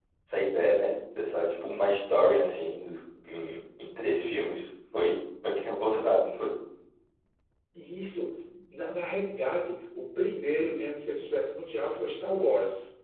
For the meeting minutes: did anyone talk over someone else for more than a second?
No

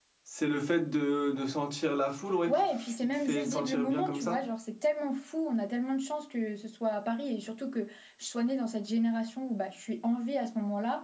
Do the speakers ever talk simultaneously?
Yes, from 2.5 s

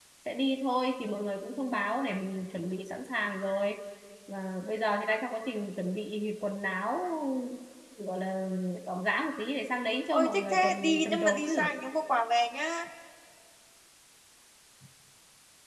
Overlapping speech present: Yes, from 10.1 s

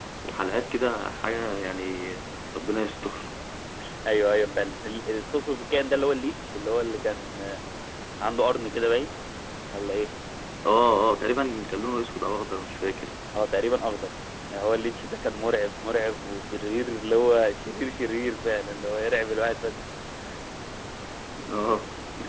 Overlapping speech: No

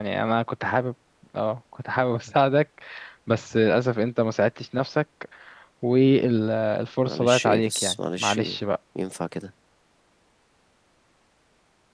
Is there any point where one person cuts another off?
Yes, from 7.1 s

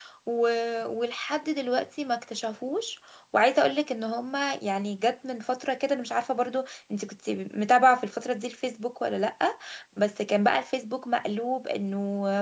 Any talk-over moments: No

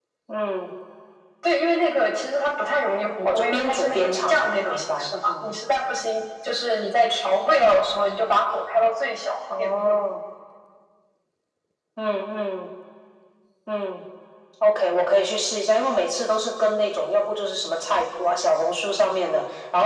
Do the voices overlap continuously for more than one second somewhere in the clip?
Yes, from 3.2 s

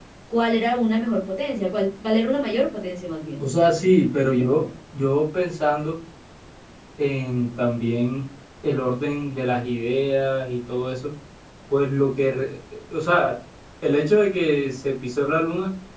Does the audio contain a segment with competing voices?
No

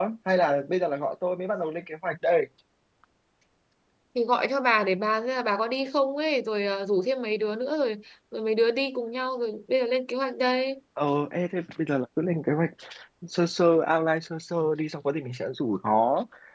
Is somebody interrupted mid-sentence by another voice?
No

